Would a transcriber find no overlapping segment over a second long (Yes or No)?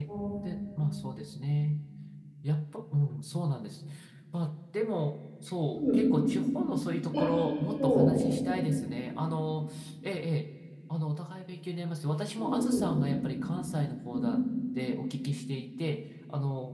Yes